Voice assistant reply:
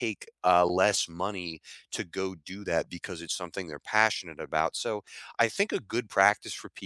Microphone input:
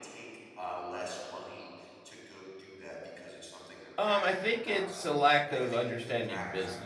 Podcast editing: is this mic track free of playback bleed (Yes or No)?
No